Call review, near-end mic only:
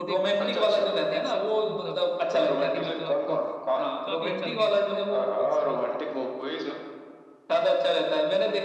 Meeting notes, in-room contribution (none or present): present